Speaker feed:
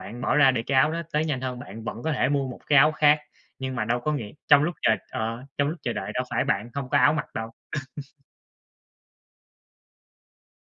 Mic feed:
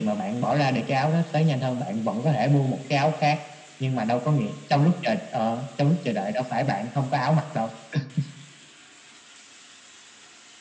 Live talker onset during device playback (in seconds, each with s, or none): none